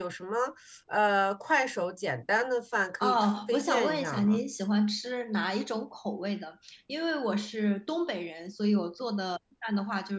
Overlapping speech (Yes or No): Yes